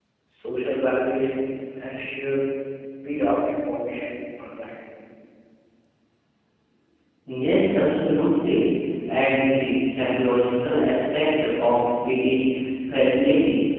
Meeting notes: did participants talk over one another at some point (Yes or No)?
No